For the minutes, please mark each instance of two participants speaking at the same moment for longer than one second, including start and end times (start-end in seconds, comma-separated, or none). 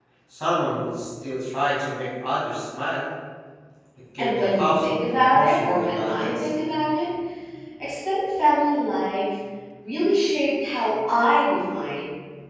4.2-6.5